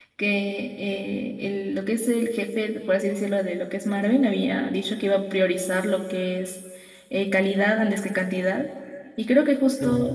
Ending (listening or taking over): listening